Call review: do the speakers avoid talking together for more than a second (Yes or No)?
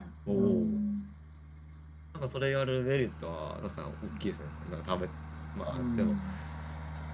Yes